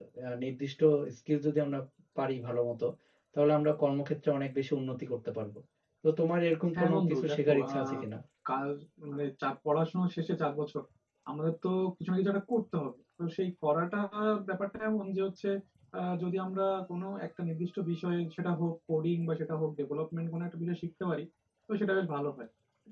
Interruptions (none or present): present